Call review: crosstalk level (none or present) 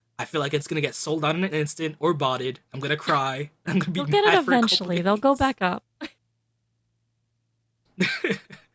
present